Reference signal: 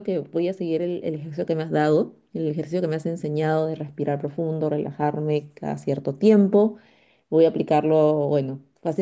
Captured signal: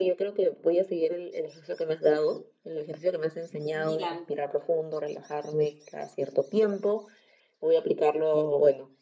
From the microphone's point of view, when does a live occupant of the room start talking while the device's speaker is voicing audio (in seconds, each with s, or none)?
3.8 s